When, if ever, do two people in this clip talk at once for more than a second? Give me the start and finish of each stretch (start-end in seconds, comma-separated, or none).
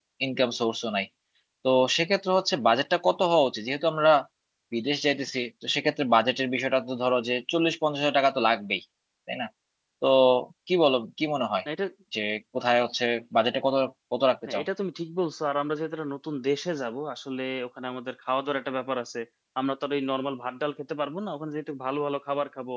none